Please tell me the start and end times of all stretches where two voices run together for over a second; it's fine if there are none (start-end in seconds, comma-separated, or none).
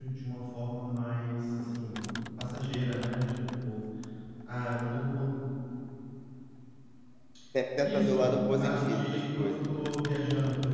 7.8-9.8